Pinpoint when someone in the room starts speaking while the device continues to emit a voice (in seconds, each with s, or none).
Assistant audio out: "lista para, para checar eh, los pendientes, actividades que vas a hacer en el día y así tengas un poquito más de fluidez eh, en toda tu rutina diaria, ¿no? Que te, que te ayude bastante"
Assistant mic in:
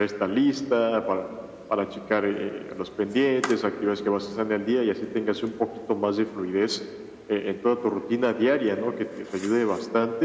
none